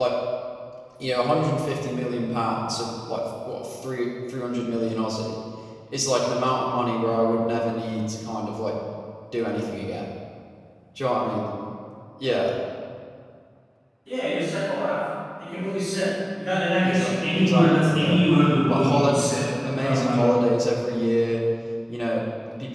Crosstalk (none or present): present